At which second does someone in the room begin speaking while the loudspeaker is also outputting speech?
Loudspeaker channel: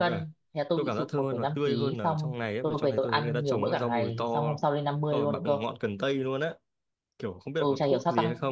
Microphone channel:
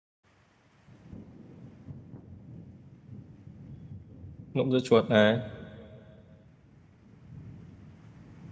4.5 s

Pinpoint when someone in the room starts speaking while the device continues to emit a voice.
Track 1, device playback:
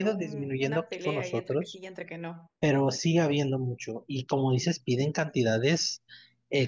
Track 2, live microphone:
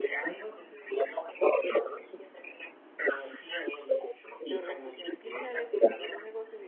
4.4 s

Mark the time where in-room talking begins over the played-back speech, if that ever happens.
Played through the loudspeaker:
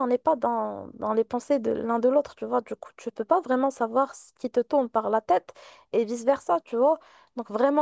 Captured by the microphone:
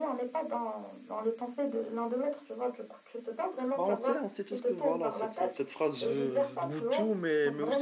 3.7 s

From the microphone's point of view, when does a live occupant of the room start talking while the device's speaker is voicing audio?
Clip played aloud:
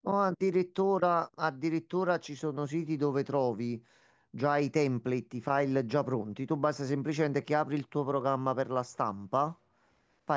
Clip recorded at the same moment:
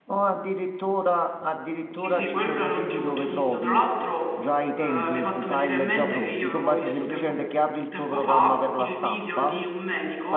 1.9 s

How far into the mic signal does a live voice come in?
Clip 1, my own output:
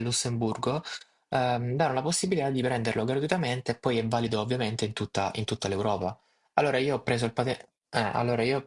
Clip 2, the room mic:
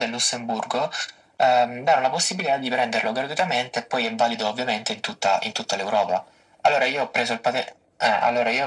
none

